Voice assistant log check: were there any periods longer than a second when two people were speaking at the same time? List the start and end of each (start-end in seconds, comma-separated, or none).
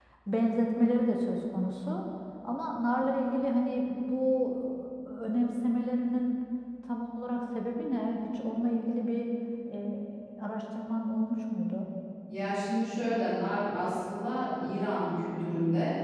none